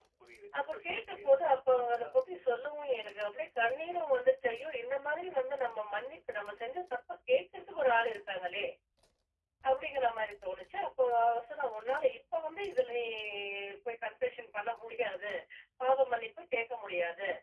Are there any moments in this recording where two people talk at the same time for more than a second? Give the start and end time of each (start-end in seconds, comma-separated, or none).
0.6-2.1